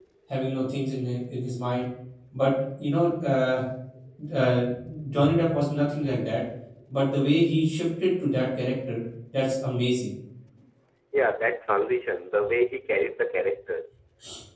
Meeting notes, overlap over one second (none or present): none